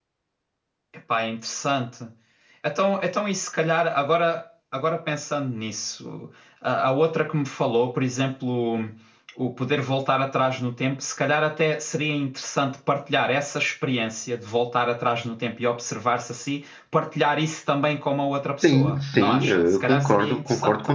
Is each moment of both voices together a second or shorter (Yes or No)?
No